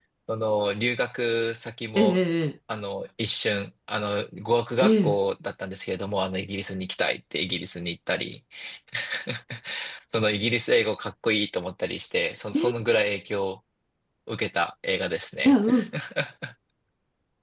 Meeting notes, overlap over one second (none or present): none